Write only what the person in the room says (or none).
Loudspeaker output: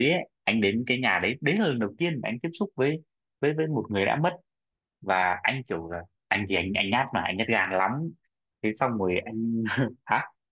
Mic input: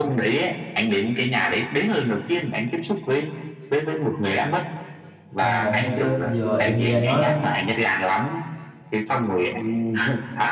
Công nhận đó chứ. Giờ em nghe anh nói